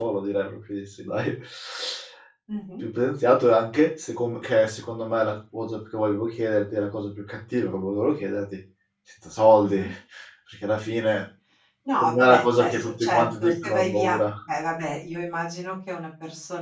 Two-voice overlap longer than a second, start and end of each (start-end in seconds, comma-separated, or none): 12.0-14.2